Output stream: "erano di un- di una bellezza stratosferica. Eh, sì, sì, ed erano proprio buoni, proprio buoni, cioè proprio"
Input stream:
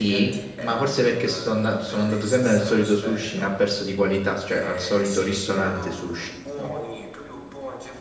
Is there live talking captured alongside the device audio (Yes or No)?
Yes